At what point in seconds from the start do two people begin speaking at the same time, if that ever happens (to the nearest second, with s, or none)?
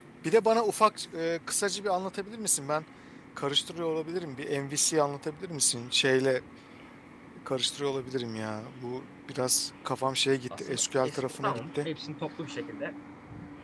11 s